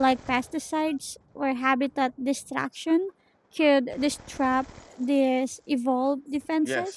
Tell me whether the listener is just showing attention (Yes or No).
No